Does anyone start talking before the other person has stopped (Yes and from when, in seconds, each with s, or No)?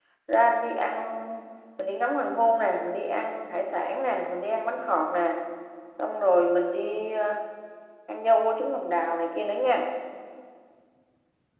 No